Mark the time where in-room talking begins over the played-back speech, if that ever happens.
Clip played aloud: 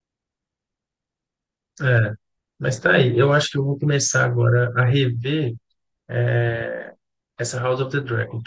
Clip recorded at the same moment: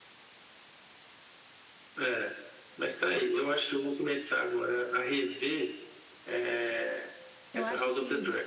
7.5 s

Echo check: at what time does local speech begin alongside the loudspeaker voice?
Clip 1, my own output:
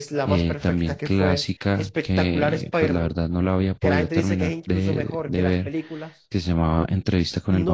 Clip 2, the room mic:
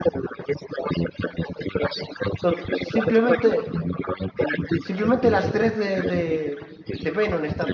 2.4 s

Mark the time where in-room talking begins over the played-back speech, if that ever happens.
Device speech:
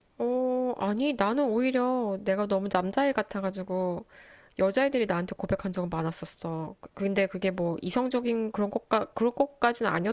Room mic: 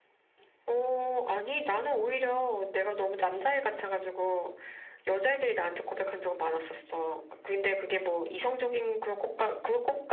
none

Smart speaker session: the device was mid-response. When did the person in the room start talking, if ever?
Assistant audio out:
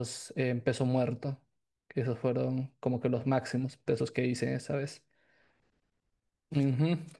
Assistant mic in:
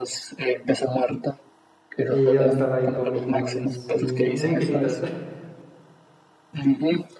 2.1 s

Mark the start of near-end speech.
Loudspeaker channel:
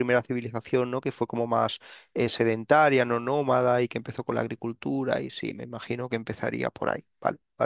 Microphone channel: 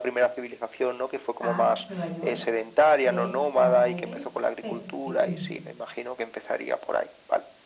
1.4 s

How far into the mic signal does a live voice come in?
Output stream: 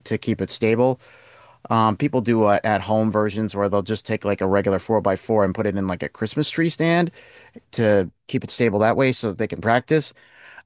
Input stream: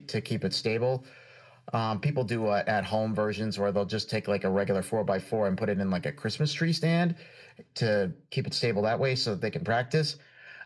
none

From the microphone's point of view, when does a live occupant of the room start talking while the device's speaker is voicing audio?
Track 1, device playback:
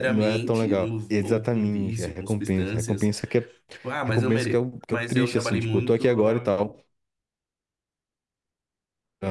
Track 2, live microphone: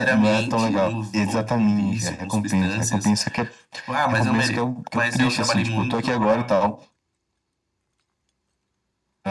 none

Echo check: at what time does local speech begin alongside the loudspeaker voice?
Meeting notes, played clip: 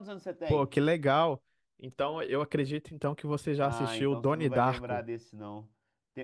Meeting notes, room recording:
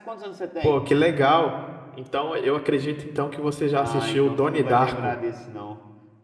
none

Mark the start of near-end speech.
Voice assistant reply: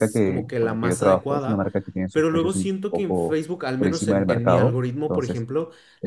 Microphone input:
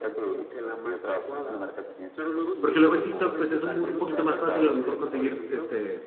2.6 s

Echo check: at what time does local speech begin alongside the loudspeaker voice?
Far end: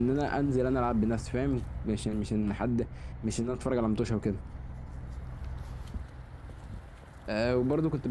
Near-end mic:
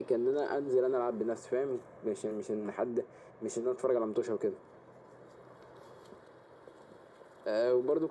none

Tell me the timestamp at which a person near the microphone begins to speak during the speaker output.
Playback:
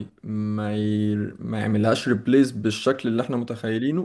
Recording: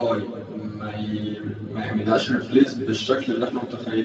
none

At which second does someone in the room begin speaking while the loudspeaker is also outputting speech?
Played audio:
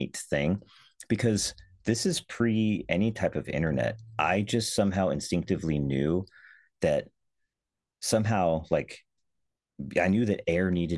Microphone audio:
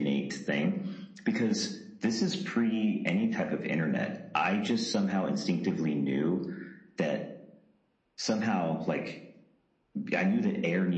none

